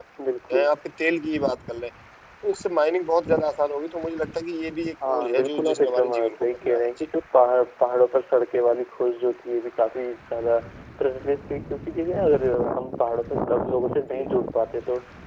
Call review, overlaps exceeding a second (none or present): present